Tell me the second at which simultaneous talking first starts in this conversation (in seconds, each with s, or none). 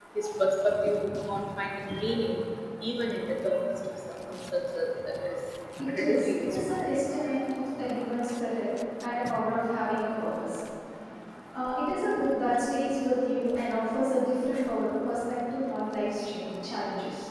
5.8 s